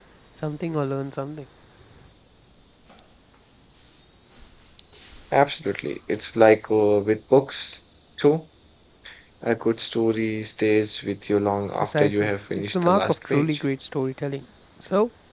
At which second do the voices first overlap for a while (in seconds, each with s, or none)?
11.8 s